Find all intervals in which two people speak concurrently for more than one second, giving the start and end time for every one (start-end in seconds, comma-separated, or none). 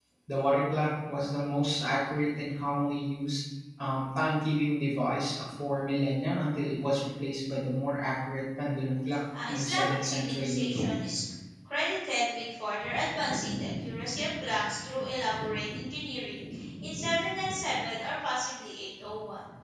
9.5-10.8